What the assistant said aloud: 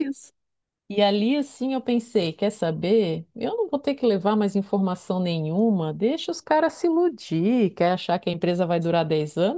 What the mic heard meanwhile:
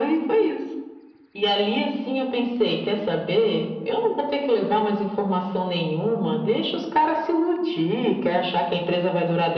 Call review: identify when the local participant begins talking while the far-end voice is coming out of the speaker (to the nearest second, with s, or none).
none